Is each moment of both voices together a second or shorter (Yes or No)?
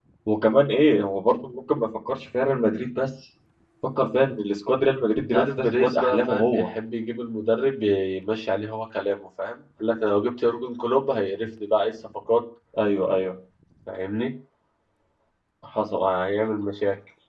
No